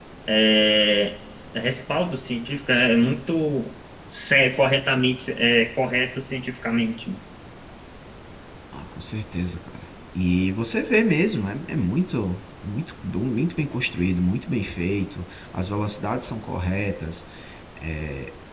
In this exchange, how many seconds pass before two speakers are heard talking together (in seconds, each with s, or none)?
none